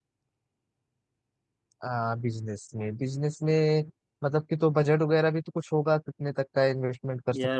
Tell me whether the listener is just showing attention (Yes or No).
No